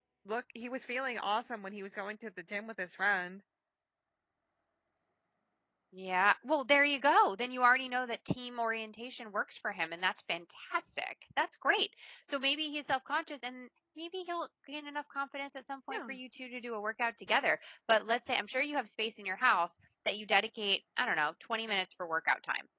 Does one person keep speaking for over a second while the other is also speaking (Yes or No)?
No